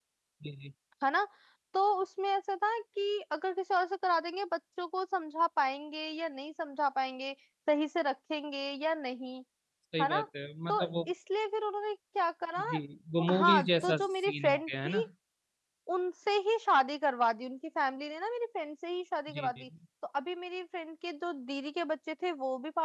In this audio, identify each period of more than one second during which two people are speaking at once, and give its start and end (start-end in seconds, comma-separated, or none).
13.3-15.0